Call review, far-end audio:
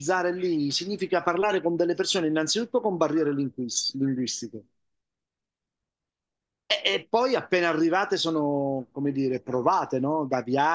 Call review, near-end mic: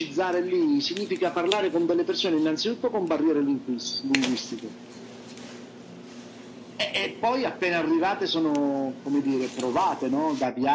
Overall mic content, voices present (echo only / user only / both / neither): echo only